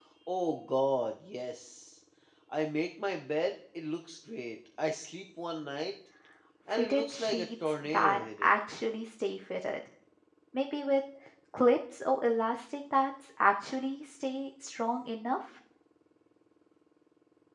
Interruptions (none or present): present